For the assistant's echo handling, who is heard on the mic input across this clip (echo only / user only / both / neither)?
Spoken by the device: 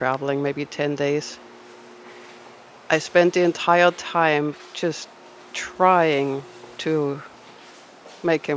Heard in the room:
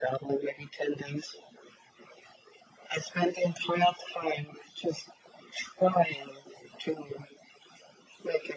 echo only